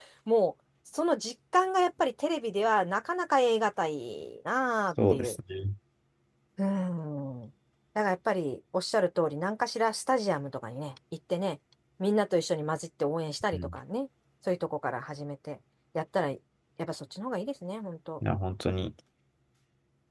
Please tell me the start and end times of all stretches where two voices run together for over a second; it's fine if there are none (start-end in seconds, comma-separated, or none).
none